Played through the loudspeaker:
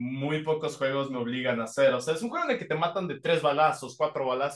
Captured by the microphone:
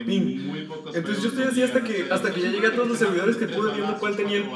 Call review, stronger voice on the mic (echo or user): user